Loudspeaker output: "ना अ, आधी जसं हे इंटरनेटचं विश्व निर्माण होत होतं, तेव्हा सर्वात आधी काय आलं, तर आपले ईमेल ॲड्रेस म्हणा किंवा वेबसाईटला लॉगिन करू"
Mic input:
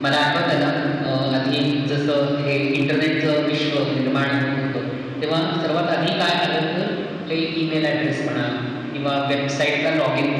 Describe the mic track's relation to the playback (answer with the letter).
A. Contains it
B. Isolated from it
A